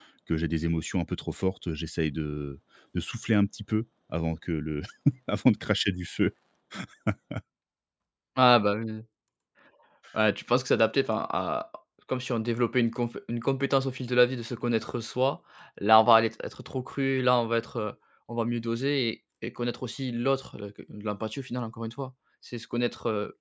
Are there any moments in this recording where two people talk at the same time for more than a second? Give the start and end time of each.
none

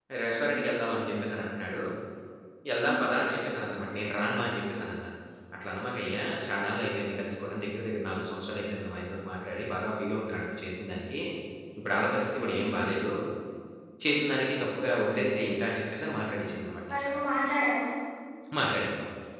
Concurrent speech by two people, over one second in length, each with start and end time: none

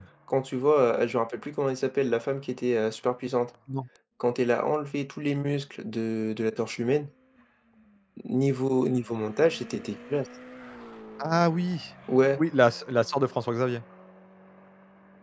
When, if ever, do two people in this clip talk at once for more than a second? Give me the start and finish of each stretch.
none

